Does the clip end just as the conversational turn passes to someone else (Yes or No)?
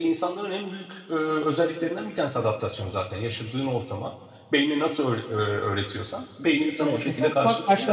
Yes